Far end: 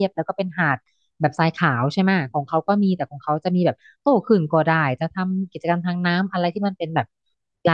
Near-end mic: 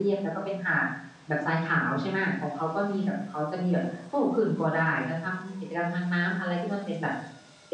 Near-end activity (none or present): none